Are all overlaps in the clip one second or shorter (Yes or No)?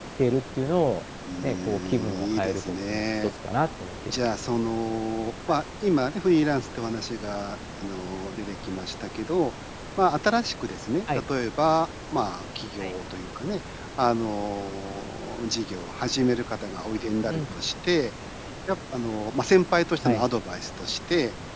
No